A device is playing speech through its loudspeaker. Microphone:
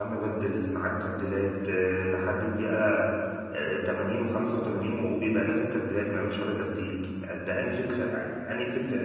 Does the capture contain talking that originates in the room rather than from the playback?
Yes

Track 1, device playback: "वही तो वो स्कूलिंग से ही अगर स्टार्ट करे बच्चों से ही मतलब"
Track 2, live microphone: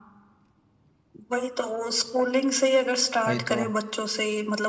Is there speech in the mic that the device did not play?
Yes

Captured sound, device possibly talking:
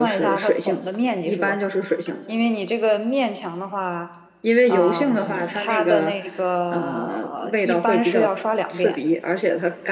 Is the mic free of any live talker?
No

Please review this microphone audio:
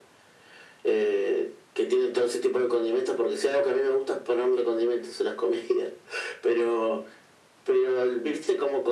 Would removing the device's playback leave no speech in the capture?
Yes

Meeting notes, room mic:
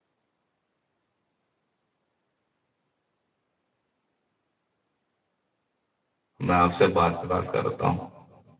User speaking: Yes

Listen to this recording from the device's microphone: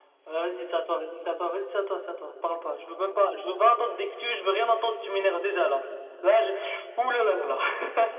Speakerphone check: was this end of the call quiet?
Yes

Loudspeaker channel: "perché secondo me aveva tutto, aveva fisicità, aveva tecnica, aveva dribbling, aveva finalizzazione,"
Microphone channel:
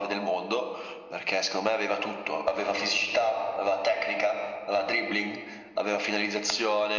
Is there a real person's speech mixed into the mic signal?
No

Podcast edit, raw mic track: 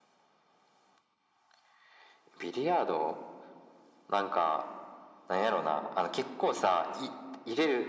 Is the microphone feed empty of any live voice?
Yes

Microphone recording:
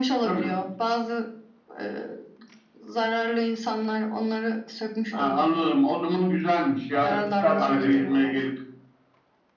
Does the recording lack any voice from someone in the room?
No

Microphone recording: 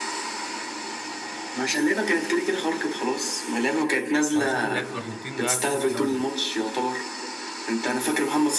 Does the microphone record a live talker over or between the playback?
Yes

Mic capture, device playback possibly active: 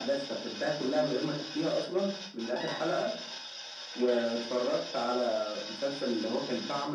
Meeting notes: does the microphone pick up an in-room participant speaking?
No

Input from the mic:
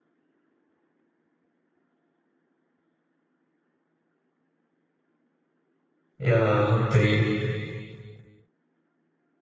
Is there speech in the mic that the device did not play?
Yes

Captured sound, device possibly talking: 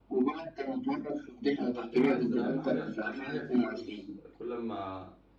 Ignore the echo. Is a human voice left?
Yes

